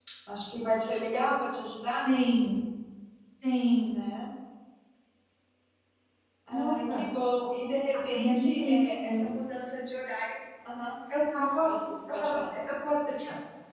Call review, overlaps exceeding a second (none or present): present